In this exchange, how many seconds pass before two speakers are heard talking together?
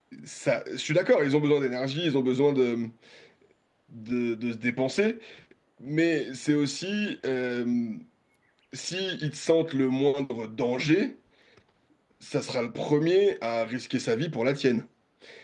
none

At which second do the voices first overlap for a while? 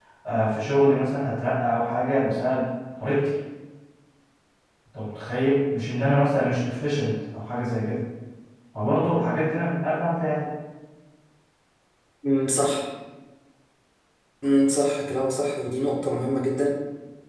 none

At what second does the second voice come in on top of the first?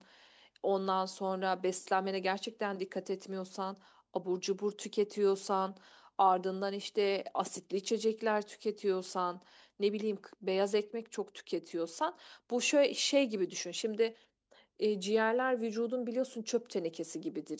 none

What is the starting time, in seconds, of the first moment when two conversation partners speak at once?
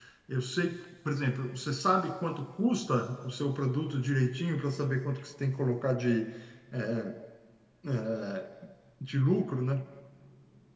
none

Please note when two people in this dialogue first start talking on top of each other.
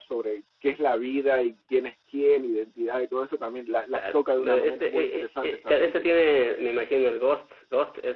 4.0 s

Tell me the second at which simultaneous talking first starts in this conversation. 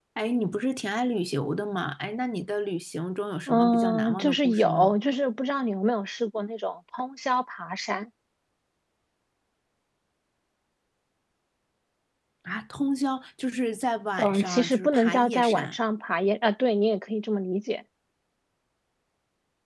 3.5 s

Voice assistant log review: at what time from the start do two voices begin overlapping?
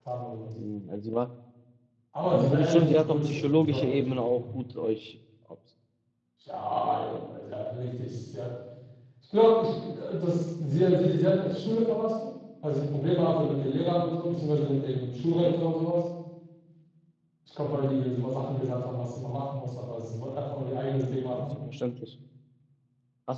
2.3 s

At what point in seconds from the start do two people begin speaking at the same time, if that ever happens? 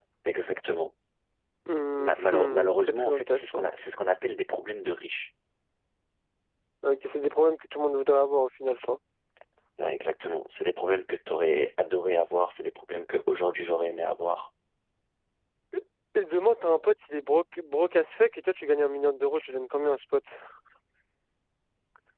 2.0 s

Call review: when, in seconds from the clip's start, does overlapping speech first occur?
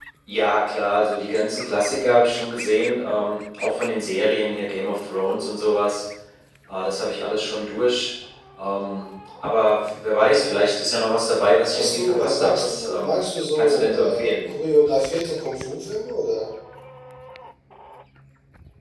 11.7 s

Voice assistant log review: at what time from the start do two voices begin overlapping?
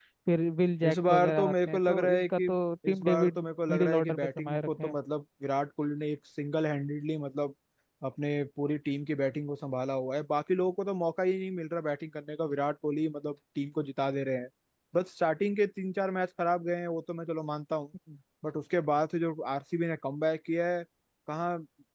0.8 s

